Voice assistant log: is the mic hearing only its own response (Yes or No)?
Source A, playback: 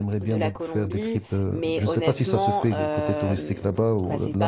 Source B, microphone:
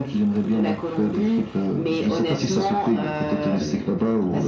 Yes